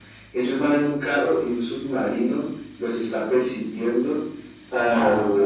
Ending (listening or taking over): listening